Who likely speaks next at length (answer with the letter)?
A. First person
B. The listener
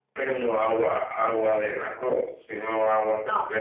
B